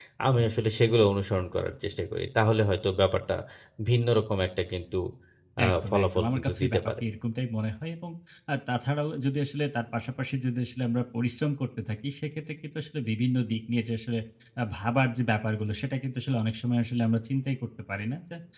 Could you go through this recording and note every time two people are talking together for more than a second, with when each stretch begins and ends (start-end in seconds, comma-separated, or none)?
5.7-7.0